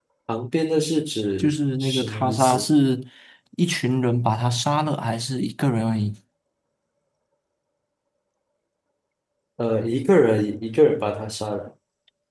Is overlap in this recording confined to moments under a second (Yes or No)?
No